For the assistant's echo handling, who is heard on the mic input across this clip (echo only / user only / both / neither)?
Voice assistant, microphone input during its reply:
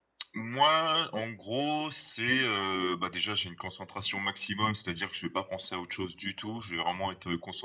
echo only